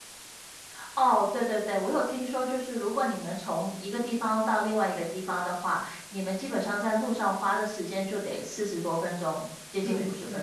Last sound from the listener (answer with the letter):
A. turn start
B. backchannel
A